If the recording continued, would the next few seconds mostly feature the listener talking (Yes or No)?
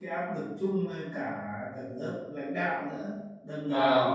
No